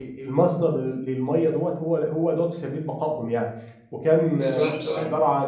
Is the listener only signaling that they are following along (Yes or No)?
Yes